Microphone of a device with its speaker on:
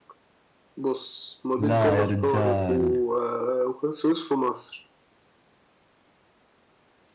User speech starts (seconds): 1.6 s

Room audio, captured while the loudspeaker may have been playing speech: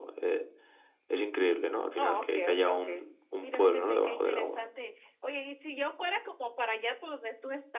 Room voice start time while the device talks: 1.9 s

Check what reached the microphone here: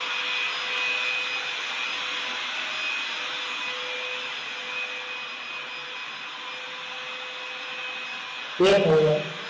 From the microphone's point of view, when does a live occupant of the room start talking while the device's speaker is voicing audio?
8.6 s

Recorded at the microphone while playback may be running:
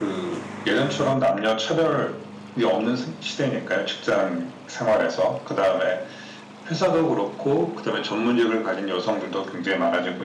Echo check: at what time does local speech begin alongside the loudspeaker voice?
none

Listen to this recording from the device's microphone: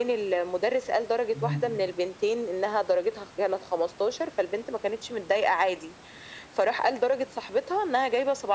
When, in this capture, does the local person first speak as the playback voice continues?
1.3 s

